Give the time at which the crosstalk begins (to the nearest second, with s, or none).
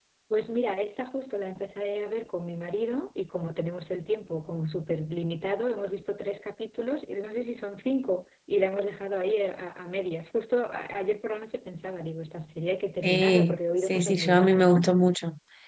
13 s